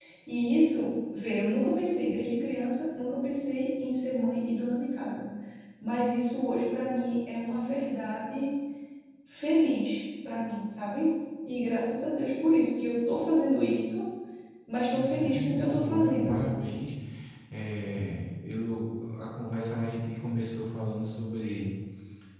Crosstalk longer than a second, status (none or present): present